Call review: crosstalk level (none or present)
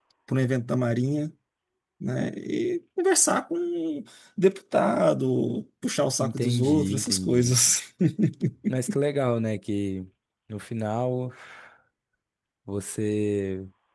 present